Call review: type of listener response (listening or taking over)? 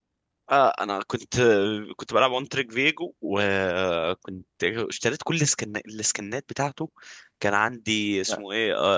listening